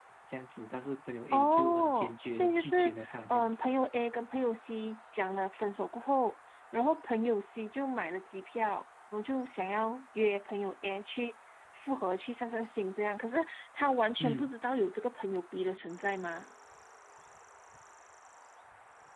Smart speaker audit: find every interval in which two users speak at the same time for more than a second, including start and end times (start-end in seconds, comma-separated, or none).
1.3-3.6